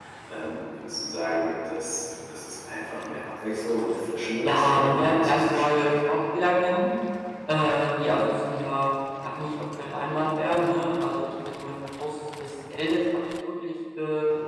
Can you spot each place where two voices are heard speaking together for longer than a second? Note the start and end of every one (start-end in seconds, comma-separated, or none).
4.4-5.9